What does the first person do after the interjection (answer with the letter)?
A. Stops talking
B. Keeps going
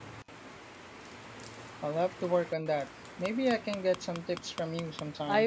A